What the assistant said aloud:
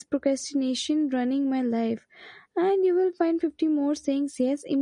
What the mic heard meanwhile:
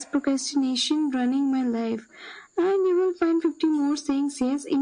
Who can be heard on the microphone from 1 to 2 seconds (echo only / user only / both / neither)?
echo only